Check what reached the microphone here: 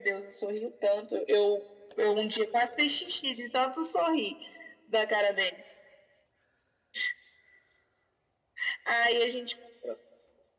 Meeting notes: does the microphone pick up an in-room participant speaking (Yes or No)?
No